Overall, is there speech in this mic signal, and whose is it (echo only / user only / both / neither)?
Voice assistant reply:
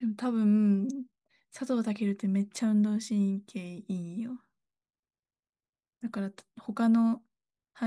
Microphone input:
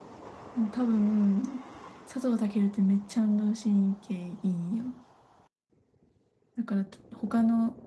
echo only